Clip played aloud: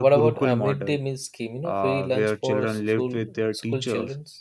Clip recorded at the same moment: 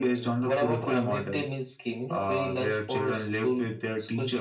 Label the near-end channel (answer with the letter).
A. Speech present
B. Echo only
B